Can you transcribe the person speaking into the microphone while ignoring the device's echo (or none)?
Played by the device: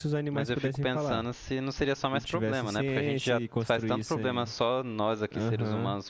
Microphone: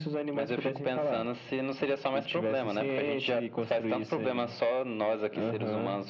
none